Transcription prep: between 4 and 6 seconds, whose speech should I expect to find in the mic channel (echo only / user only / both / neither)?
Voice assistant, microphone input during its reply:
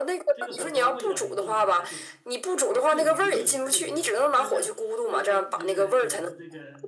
both